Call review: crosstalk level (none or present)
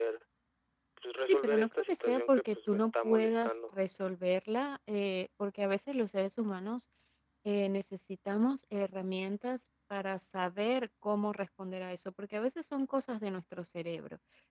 present